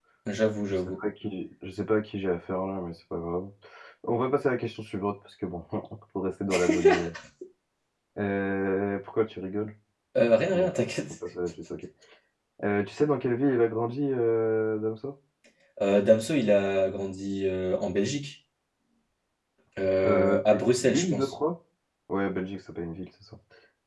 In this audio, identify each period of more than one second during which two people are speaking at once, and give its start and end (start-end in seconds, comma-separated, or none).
20.0-21.3